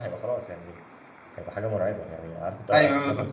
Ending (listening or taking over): listening